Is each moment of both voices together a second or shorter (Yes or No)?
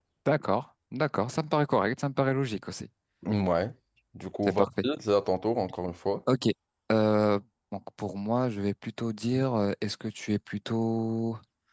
Yes